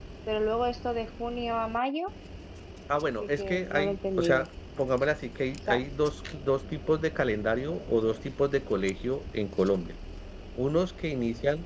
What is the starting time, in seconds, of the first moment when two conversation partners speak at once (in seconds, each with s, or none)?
3.2 s